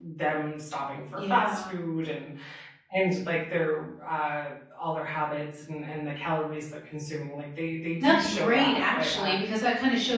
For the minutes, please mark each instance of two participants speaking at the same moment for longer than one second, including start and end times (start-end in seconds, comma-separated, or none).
8.0-9.4